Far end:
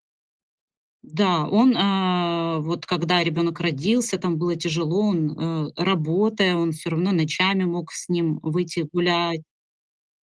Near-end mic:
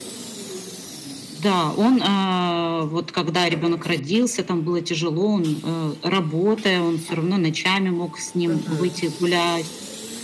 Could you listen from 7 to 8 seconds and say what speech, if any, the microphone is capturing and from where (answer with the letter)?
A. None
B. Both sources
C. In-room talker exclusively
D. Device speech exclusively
D